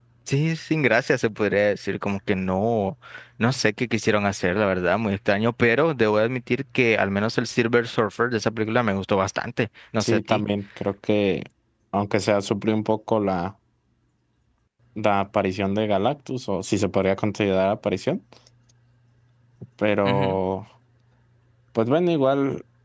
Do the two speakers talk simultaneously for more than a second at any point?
No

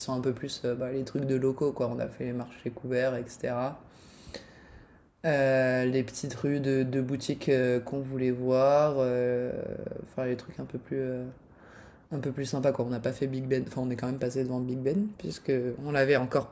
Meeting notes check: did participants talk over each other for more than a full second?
No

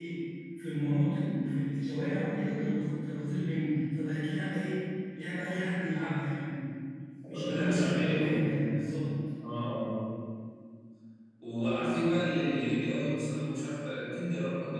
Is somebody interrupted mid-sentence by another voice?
Yes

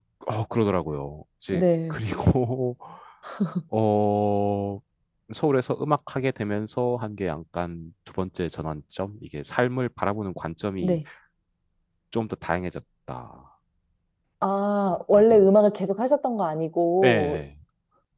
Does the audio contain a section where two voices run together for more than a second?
No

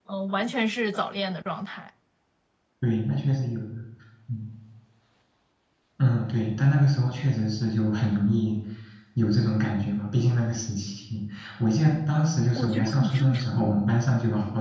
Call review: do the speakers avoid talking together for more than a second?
No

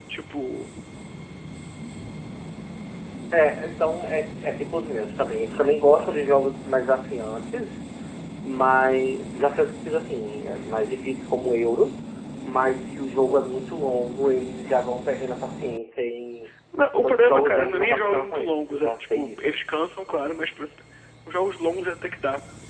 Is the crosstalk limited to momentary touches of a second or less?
No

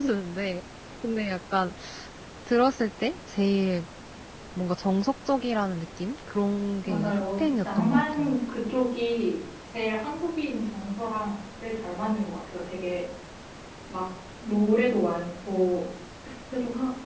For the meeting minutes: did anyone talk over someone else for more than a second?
Yes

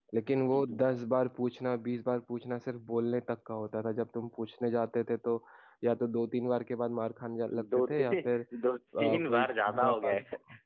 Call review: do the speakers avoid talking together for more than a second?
No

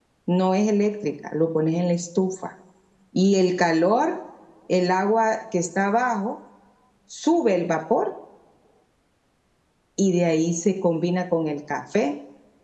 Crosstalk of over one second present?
No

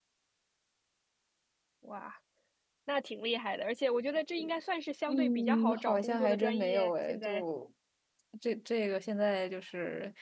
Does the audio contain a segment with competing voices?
Yes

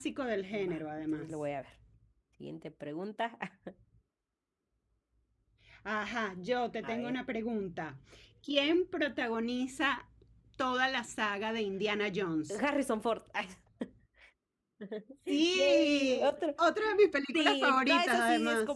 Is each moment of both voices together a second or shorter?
No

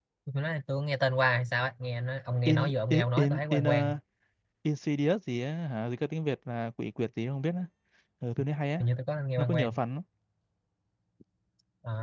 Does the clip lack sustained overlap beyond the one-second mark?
No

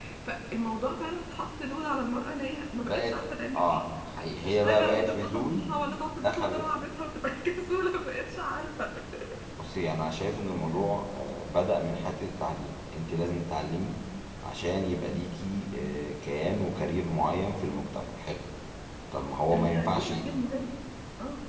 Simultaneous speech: Yes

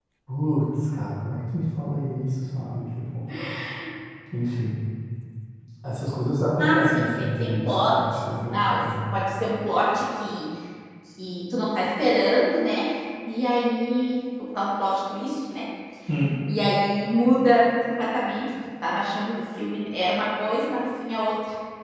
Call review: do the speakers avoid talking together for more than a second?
No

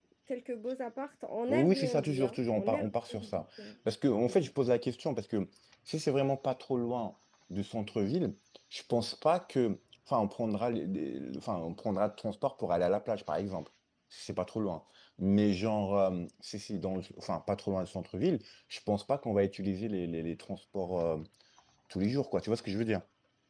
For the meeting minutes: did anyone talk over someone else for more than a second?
Yes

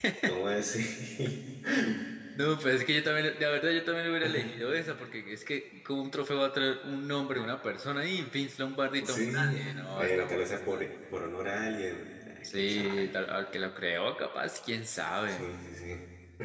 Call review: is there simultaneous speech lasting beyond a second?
Yes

